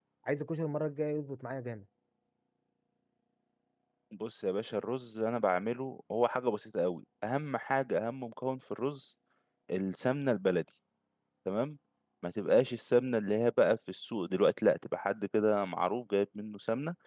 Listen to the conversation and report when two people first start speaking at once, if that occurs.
none

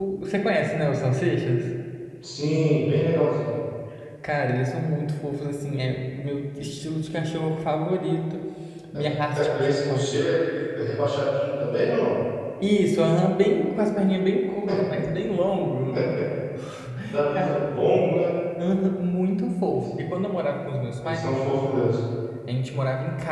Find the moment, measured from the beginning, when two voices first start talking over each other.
9 s

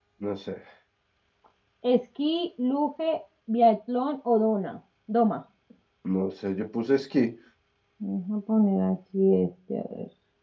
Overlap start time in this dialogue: none

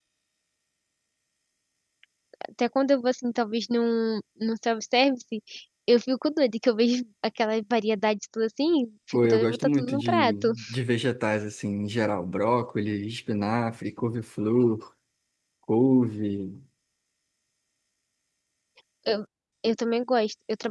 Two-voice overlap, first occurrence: 9 s

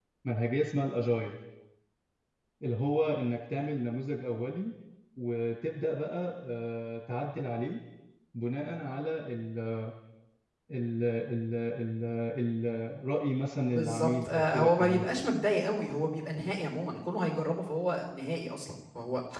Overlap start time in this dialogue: 14 s

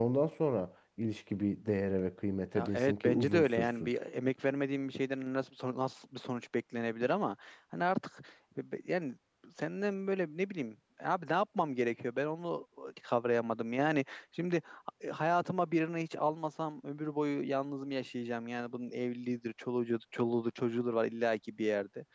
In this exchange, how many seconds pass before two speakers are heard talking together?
3 s

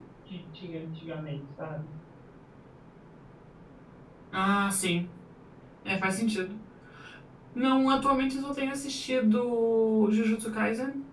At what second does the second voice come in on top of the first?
none

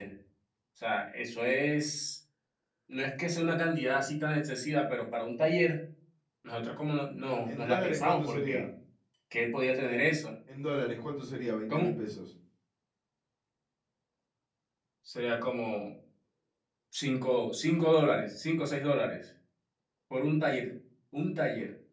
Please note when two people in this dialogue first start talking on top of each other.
7 s

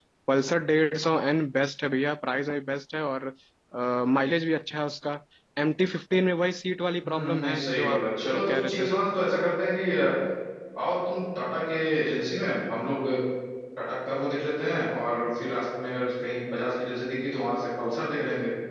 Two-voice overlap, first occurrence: 7 s

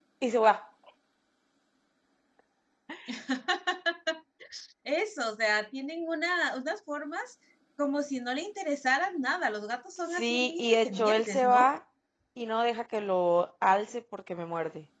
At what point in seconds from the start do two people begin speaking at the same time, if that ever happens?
10 s

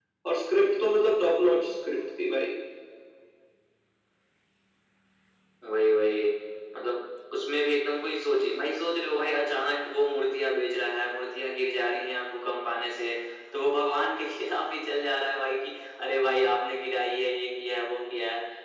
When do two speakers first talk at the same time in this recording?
none

